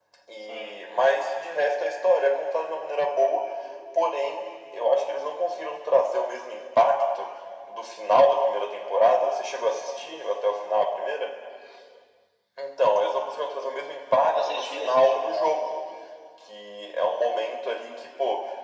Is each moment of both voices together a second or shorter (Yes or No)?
No